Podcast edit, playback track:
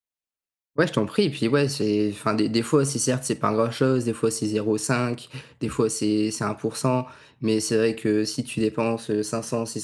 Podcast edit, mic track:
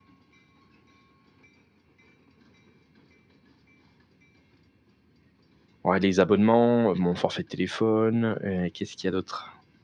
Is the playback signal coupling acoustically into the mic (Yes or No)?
No